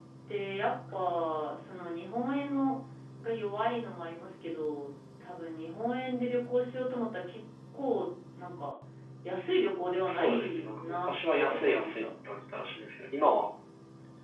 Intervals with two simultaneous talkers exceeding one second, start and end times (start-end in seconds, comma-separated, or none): 10.1-12.0